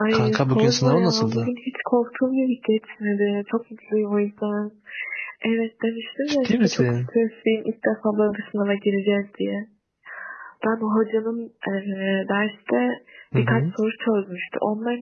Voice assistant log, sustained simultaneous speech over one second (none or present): present